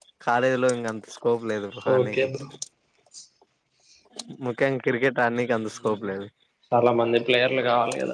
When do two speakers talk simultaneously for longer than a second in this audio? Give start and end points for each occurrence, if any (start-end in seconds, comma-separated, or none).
none